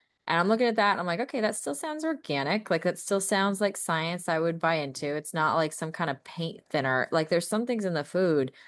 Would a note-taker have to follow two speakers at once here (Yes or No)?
No